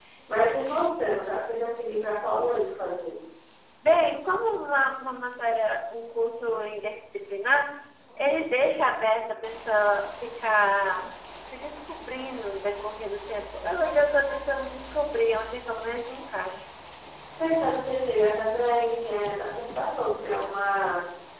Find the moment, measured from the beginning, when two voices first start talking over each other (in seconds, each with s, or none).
none